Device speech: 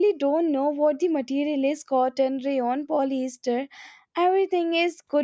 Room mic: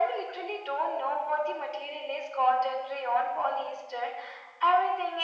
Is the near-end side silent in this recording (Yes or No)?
Yes